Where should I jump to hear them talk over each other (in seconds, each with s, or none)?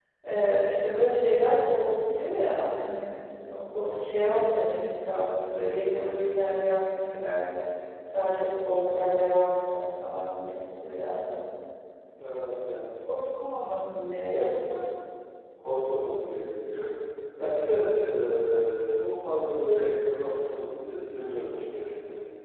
none